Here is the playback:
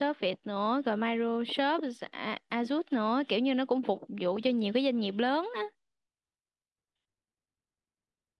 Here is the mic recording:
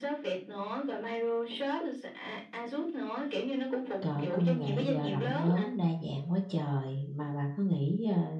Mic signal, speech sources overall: both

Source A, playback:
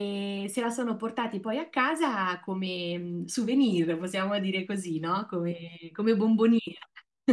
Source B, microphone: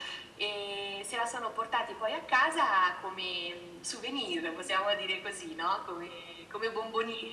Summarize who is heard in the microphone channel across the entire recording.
echo only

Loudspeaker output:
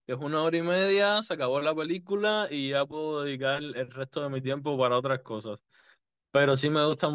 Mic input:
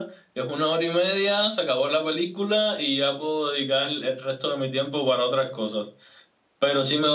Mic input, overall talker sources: echo only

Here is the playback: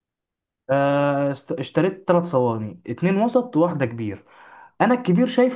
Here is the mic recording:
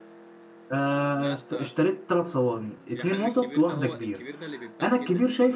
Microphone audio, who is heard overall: both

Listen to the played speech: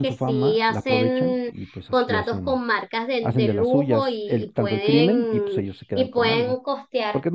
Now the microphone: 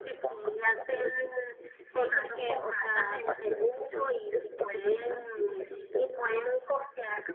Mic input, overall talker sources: both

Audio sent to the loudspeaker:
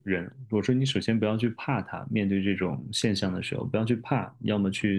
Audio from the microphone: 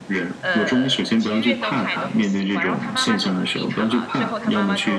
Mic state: both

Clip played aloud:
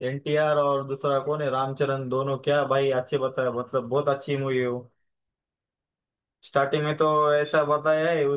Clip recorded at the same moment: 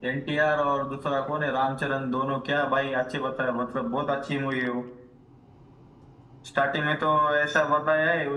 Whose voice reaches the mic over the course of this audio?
echo only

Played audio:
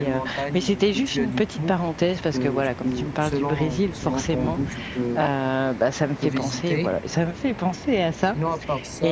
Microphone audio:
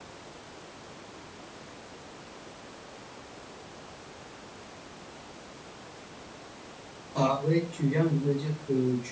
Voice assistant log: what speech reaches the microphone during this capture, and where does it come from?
user only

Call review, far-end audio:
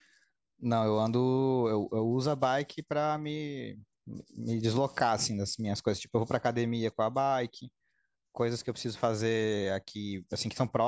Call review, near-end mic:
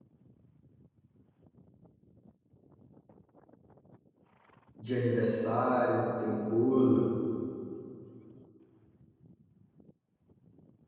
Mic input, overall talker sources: user only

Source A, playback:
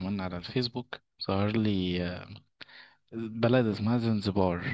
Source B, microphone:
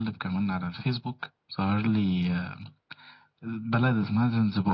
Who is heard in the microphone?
echo only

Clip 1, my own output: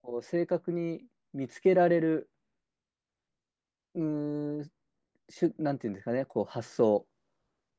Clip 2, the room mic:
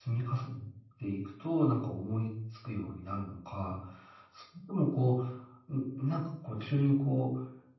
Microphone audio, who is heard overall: user only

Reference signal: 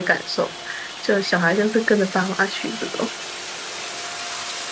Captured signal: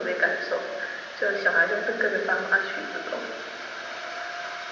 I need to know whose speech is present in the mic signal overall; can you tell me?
echo only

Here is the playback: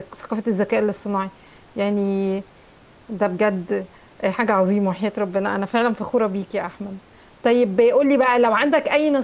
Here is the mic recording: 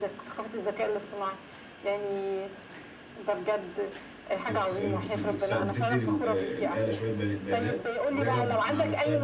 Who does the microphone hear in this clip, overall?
both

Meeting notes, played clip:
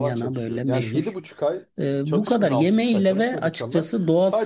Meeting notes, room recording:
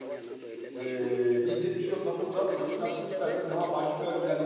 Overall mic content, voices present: both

